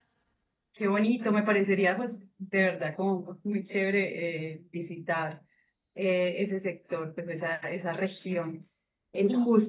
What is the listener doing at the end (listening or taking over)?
listening